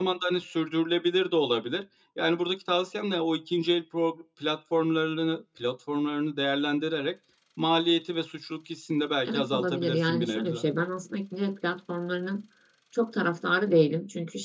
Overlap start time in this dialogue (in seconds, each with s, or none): 9.2 s